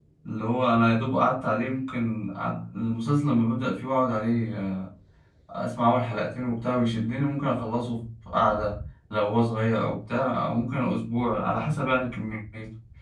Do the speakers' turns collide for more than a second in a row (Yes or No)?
No